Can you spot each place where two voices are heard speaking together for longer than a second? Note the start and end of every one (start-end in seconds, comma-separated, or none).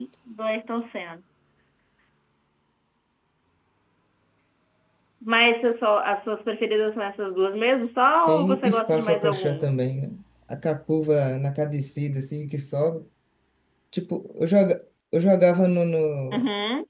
8.3-9.7